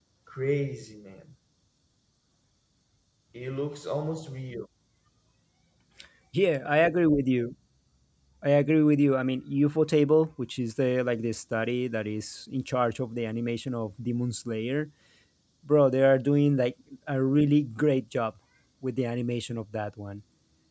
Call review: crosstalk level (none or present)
none